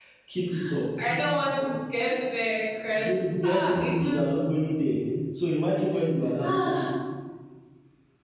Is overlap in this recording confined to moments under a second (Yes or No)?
No